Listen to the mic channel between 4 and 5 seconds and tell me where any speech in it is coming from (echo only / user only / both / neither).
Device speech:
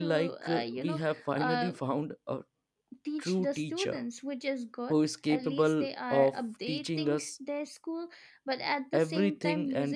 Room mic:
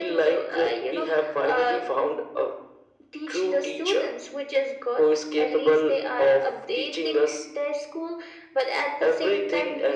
echo only